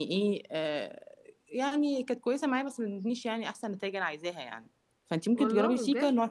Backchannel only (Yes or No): Yes